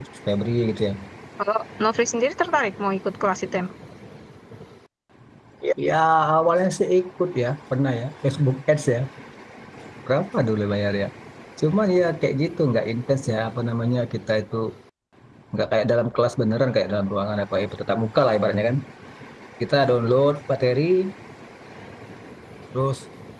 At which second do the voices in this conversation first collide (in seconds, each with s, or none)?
none